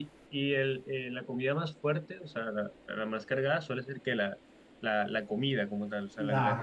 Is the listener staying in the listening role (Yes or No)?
No